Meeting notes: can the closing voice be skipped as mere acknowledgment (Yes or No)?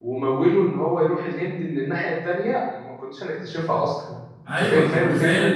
No